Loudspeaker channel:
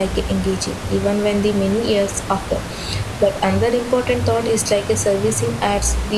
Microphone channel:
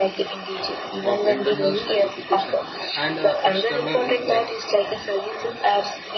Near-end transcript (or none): of internal certification and uh, external impact.